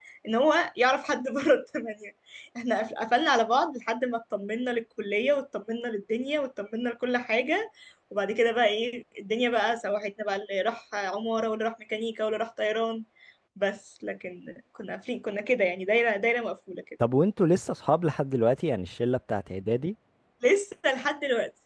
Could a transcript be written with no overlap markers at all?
Yes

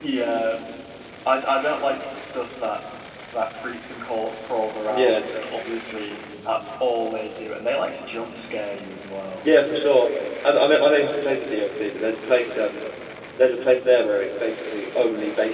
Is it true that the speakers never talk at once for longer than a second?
Yes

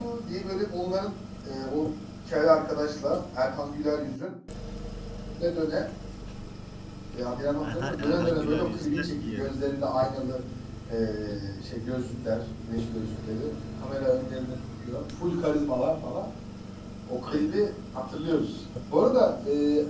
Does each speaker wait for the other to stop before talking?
No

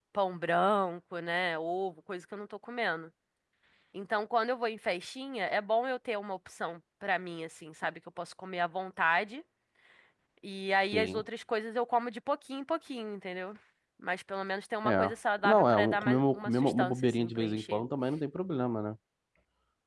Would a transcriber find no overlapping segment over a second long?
No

